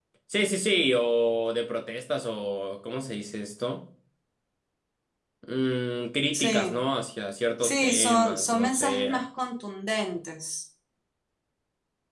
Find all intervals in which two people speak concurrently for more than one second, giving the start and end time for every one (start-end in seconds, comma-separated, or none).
7.6-9.2